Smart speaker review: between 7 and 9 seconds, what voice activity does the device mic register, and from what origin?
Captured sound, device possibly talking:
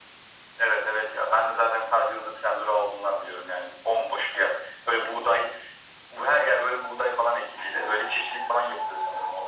echo only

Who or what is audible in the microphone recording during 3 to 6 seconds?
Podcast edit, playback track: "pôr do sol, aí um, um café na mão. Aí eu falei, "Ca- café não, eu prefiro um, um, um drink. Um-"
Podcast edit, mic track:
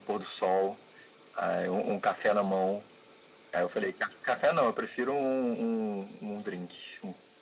echo only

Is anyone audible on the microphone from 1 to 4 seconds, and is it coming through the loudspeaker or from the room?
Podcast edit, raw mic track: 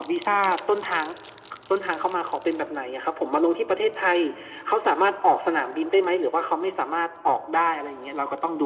echo only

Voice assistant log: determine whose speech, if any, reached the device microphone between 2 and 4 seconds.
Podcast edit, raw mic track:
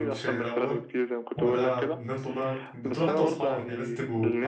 both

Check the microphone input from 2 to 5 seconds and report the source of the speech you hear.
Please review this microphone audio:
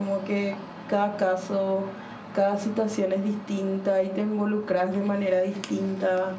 echo only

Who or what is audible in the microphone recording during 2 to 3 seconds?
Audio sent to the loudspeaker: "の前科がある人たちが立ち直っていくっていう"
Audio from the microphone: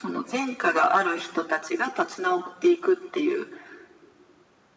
echo only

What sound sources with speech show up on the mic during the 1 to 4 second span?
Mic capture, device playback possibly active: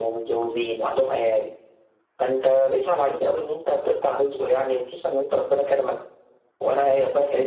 echo only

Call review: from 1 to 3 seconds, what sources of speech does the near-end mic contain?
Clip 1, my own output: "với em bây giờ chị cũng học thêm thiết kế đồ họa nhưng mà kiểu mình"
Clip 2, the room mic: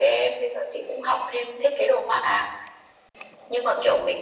echo only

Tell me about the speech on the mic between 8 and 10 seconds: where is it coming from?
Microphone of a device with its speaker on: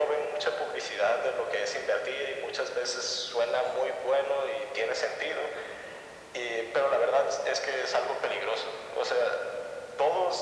echo only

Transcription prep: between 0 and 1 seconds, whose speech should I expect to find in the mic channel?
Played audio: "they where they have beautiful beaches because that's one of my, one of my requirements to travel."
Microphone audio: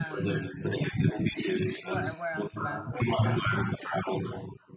both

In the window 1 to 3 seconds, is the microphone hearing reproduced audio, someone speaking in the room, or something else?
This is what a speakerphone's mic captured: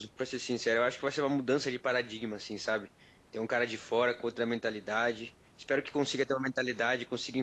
user only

